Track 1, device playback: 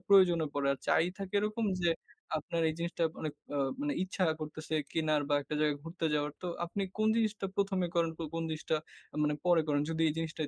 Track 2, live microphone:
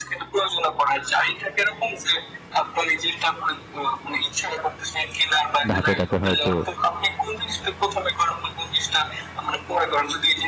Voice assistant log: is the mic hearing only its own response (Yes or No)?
No